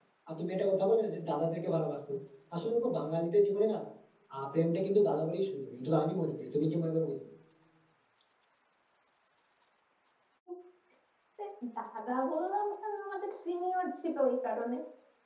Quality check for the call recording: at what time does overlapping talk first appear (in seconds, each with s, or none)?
none